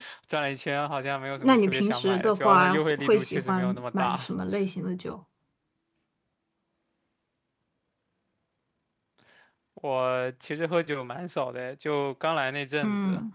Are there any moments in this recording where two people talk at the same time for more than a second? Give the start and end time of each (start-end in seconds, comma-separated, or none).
1.4-4.3